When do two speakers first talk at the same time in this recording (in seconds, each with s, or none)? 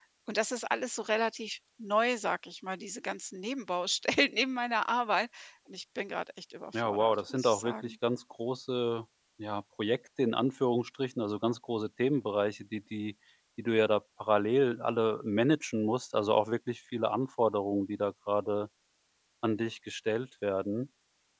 6.7 s